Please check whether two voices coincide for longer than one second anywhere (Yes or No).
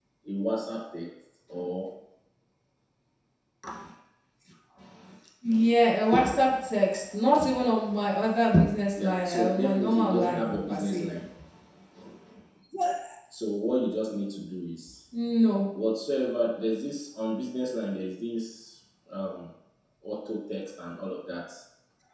Yes